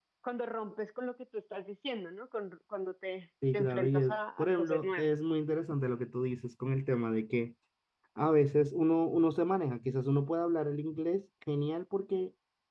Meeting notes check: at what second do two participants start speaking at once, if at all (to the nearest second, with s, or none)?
3 s